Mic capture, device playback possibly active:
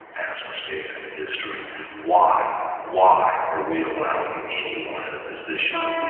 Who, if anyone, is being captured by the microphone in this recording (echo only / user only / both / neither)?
user only